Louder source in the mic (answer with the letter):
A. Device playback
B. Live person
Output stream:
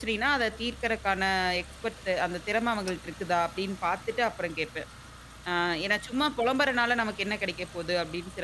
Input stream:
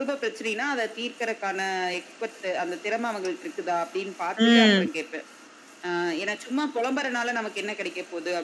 B